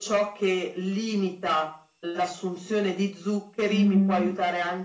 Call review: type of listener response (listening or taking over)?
listening